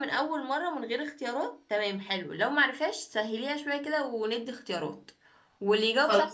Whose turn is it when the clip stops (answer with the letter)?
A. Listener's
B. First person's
B